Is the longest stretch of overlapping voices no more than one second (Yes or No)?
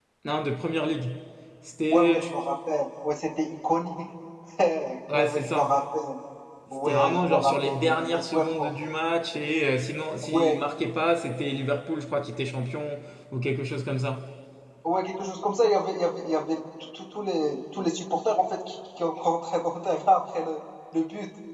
No